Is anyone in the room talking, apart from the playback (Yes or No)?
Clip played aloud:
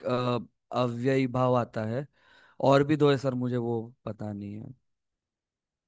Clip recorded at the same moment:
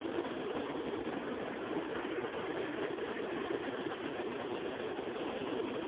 No